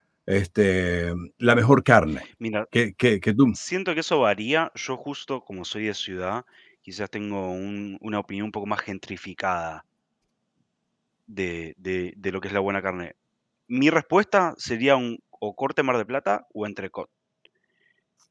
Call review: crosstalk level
none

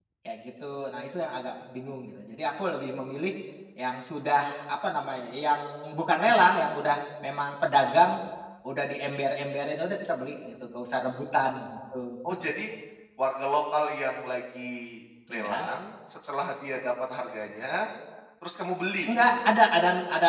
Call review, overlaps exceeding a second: none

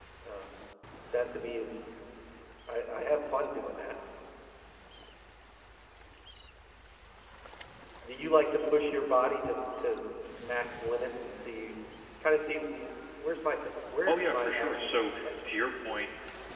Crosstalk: present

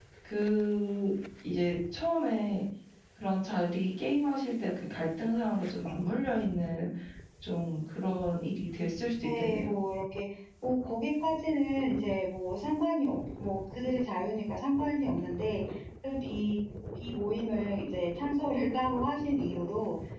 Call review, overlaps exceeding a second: none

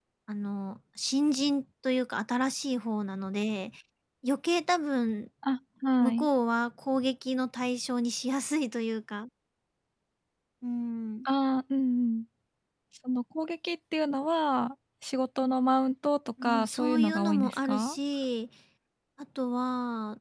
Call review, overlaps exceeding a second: present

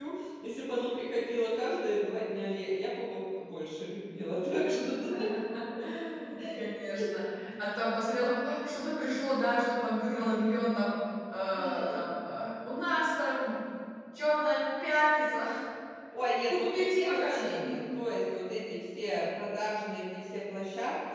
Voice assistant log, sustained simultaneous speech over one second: present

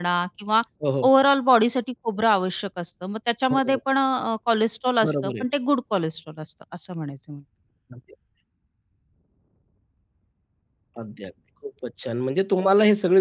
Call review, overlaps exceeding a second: none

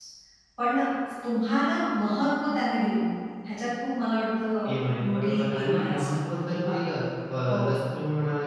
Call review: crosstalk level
present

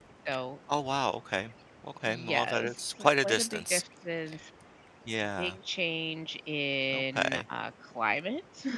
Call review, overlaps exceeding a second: present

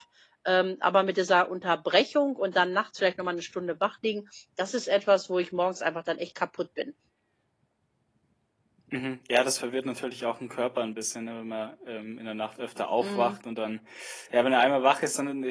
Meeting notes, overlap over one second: none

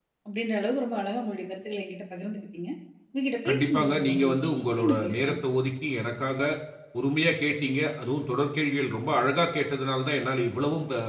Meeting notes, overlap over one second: present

